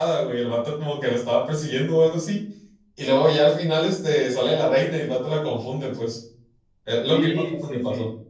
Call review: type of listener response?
taking over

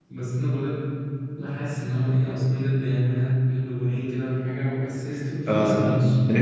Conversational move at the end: taking over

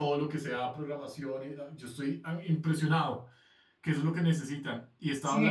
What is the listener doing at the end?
listening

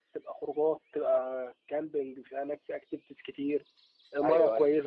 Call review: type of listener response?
listening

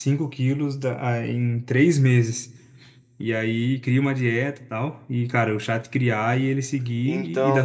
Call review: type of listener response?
listening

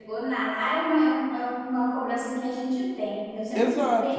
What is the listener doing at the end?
taking over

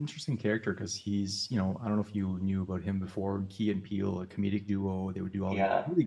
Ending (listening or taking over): listening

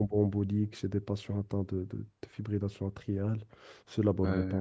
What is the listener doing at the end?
taking over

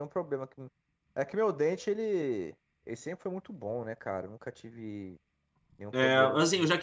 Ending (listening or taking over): taking over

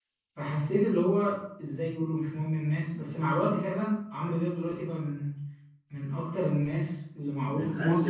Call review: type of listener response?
taking over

